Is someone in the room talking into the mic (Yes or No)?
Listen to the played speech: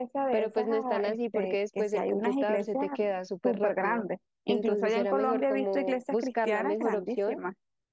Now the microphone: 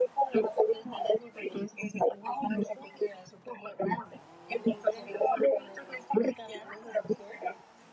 No